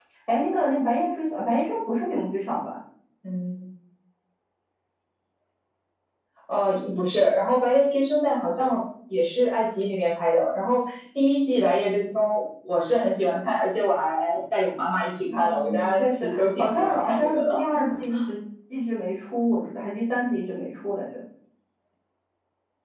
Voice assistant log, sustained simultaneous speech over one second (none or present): present